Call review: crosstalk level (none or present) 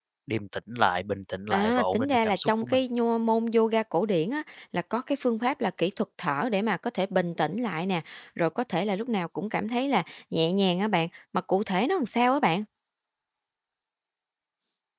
present